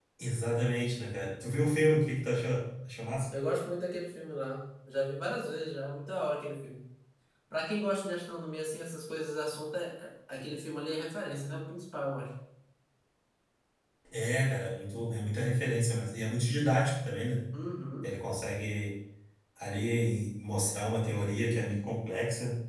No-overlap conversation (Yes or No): Yes